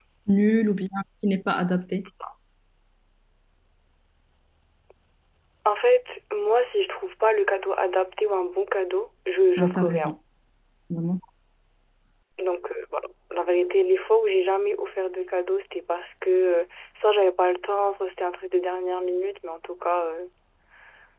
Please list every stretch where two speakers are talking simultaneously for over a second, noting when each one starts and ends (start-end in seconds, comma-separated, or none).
none